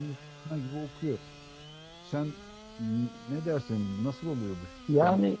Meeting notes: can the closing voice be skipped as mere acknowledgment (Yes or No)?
No